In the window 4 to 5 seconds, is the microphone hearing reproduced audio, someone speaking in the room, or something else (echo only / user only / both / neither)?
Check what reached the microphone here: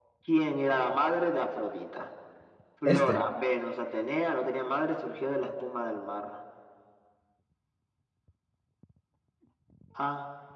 echo only